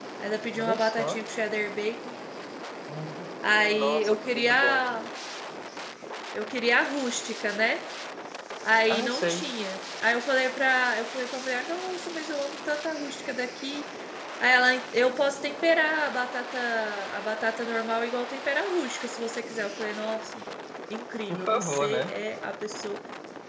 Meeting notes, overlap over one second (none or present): present